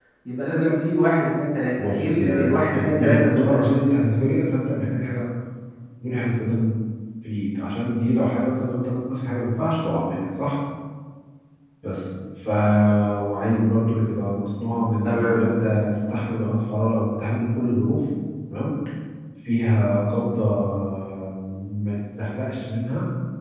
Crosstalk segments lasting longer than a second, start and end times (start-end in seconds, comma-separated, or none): 1.8-3.6